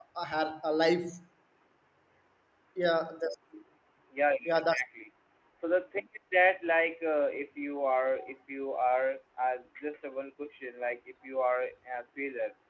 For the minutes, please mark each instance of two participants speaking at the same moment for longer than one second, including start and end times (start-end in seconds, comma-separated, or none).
none